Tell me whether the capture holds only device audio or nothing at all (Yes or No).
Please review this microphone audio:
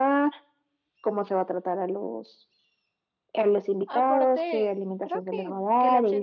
No